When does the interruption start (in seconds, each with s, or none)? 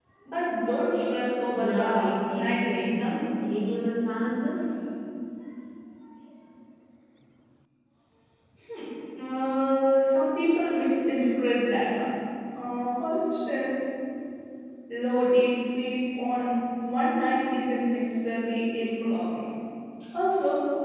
1.6 s